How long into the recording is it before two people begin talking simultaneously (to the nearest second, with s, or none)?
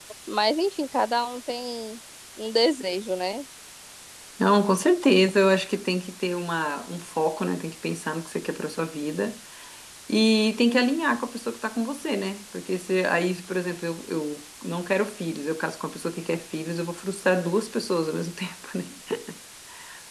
none